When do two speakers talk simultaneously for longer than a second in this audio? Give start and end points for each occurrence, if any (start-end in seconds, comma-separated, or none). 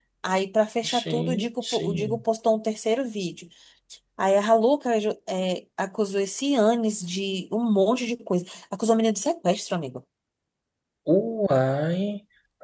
0.9-2.2